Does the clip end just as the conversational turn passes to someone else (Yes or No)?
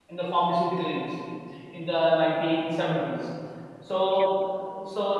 No